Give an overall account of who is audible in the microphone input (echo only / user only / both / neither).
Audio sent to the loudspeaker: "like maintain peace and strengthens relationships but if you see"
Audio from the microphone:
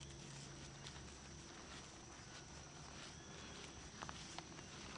neither